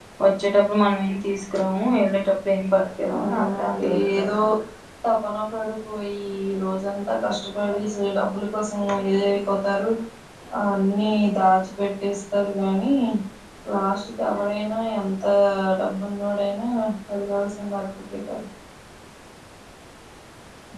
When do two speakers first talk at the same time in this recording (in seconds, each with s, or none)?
3.0 s